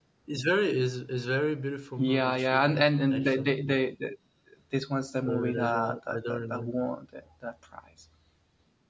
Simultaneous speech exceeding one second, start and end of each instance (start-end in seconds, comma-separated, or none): 2.0-3.5, 5.3-6.7